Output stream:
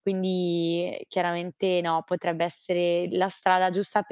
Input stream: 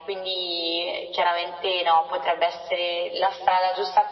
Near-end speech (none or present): none